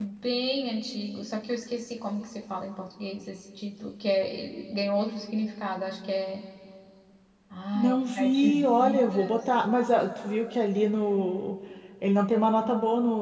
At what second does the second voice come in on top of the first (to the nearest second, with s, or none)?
8 s